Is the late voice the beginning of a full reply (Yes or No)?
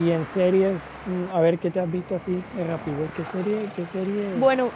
Yes